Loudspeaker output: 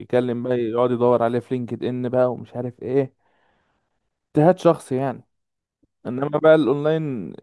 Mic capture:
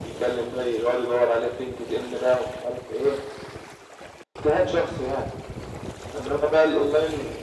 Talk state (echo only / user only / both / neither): echo only